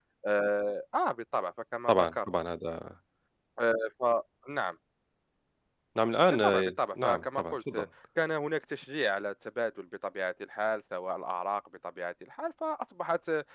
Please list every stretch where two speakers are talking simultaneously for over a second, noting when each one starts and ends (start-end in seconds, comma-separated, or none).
6.4-7.9